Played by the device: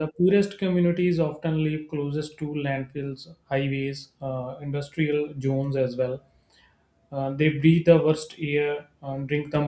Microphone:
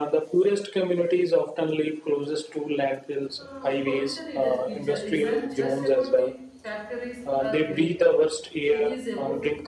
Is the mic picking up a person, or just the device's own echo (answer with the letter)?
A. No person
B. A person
B